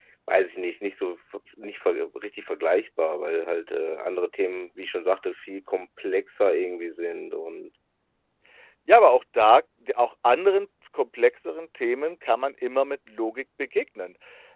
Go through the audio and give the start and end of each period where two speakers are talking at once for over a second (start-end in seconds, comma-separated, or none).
none